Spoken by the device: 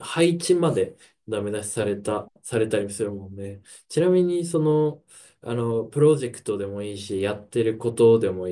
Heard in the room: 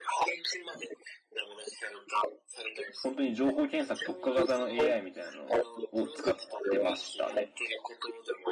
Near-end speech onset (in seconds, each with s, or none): 3.0 s